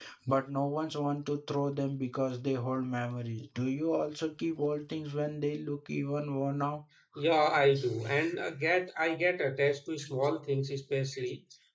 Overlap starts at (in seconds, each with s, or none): none